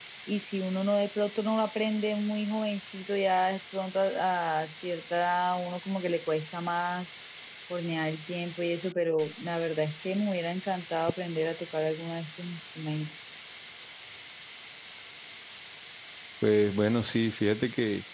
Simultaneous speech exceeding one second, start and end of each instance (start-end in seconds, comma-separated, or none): none